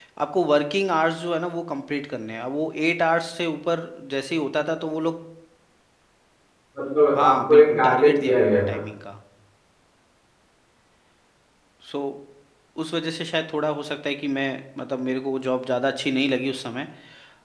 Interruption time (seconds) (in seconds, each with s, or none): 7.2 s